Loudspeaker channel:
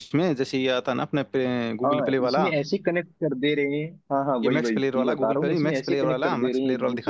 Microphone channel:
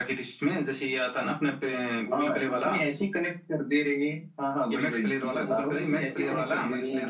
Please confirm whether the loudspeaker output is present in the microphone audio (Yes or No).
Yes